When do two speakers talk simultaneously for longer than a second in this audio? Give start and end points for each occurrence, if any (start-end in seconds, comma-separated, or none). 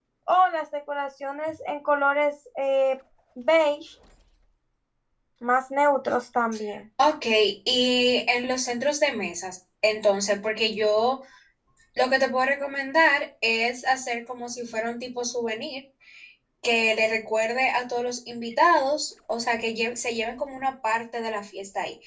none